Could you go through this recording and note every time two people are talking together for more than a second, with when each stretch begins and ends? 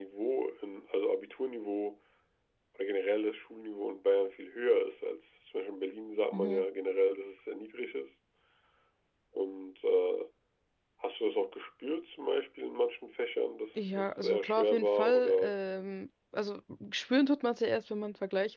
14.0-15.5

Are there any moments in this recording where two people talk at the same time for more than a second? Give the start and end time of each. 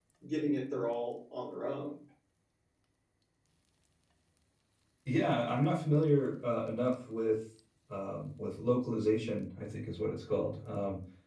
none

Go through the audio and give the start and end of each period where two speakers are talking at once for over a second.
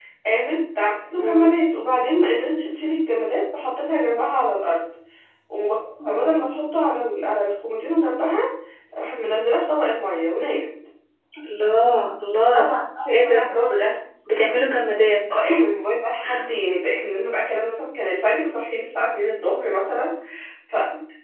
none

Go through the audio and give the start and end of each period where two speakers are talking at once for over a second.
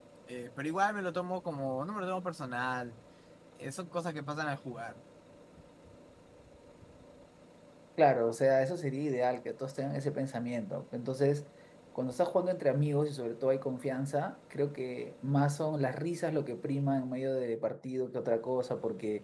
none

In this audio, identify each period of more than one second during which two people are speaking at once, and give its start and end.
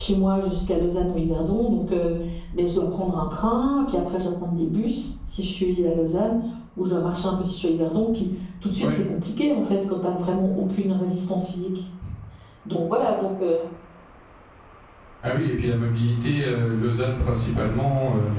none

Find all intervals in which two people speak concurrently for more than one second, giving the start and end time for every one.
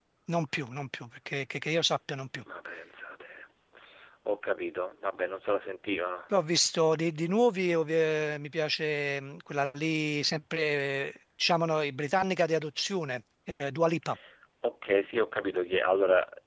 none

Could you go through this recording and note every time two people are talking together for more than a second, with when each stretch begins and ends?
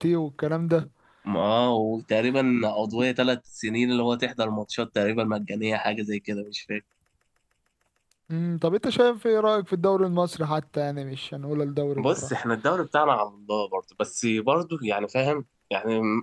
none

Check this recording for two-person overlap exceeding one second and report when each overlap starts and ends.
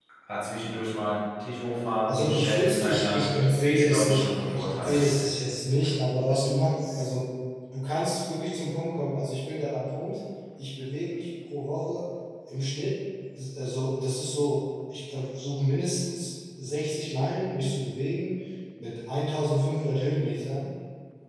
2.1-3.3, 3.7-5.0

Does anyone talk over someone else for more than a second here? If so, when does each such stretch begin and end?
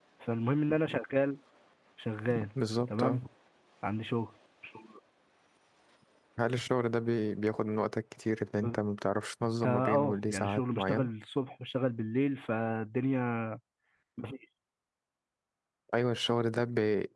9.6-11.1

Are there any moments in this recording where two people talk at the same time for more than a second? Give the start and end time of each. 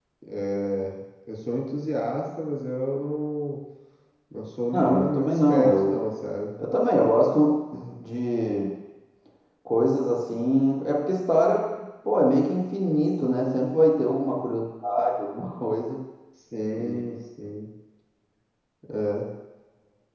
4.7-6.0

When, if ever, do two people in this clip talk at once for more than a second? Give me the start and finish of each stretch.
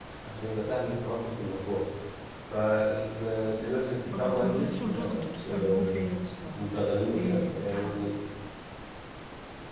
4.2-6.1, 6.5-8.1

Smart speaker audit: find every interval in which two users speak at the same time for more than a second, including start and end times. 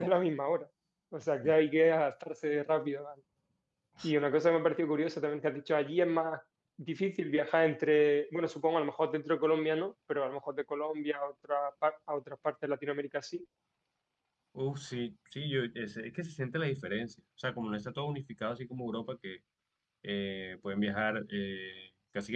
none

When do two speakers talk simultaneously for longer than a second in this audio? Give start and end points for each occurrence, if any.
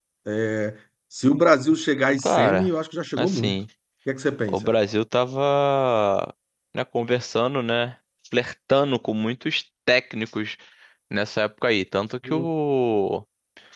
none

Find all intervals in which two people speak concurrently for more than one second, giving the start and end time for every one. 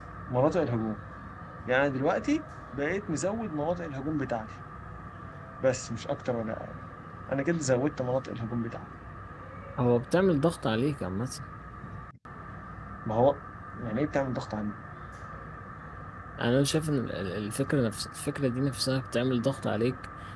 none

